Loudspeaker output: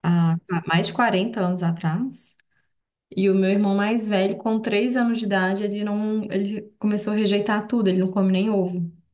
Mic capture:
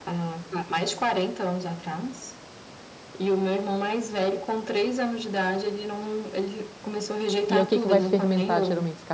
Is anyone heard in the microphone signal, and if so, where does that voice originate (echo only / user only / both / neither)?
both